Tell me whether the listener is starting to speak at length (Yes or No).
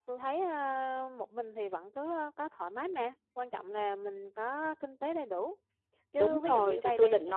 Yes